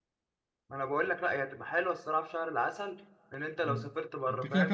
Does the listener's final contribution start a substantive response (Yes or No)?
Yes